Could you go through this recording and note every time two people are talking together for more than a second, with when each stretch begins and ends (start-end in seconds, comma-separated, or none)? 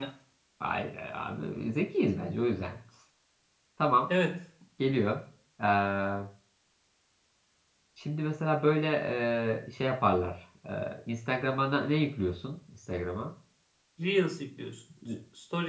none